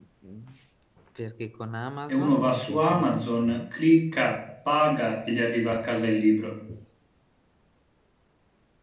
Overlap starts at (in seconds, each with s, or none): 2.1 s